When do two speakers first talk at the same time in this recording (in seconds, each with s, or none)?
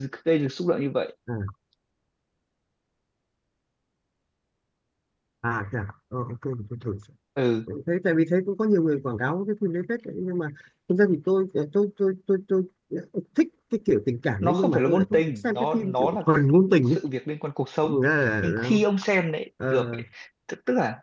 14.4 s